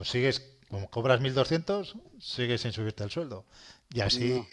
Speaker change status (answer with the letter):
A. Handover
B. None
B